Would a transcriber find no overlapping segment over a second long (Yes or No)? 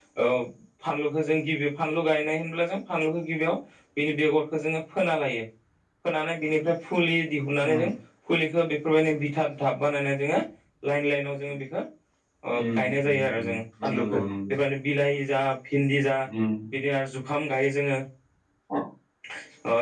No